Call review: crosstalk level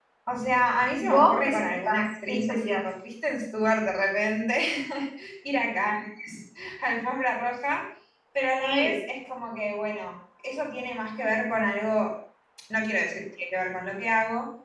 present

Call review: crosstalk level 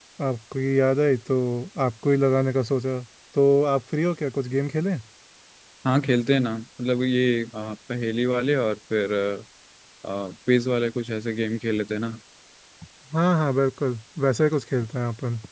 none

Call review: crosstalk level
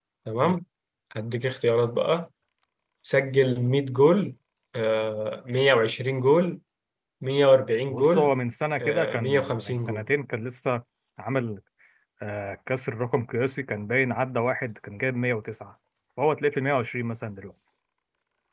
present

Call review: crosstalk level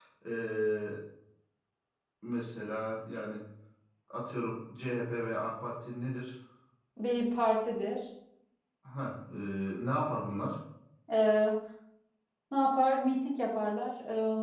none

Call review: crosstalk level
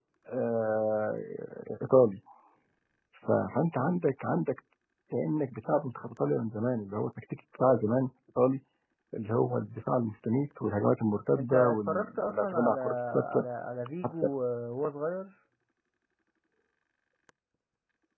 present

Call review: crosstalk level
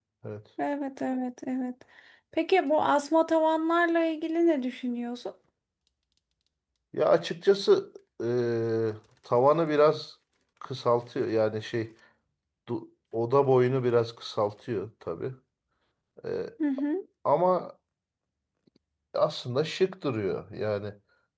none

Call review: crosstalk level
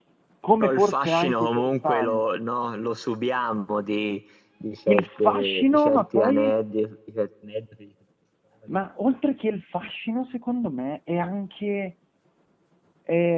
present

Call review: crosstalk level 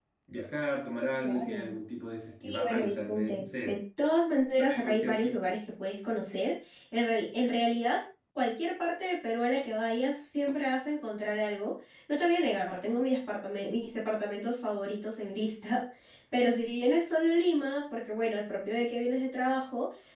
present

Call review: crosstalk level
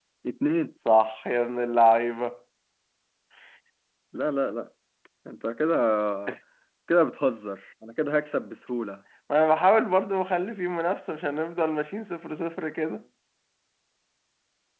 none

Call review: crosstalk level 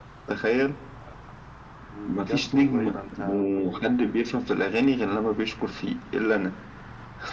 present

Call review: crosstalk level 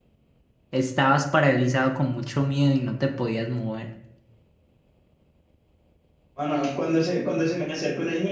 none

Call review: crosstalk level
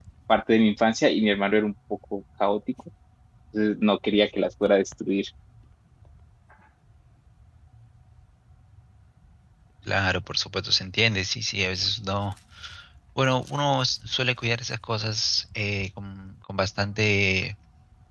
none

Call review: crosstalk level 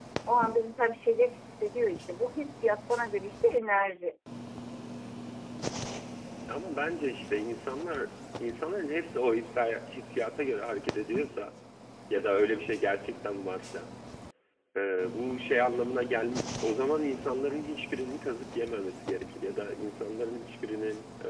none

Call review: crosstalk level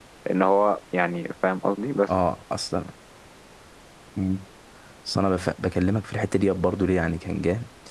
none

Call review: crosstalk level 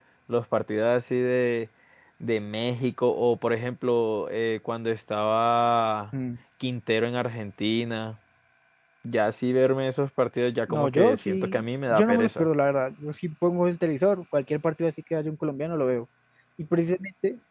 present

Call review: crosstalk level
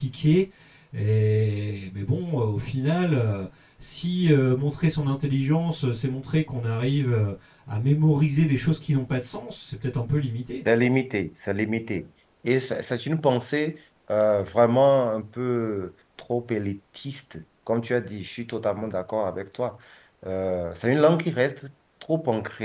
none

